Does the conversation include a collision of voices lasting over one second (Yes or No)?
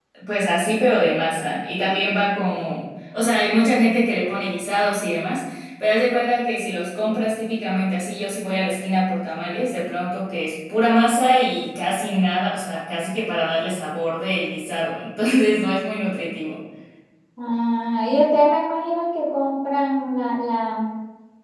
No